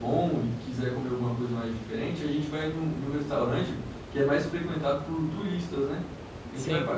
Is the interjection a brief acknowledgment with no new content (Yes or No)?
Yes